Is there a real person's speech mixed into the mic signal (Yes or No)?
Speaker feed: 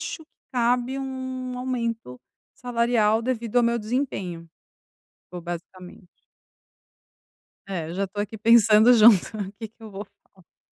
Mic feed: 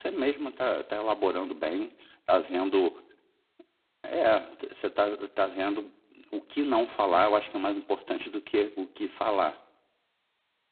Yes